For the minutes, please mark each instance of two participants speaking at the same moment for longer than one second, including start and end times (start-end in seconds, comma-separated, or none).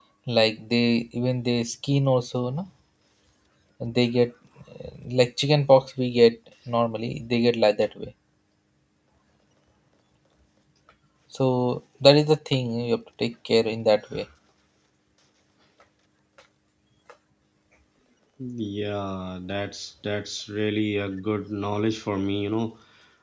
none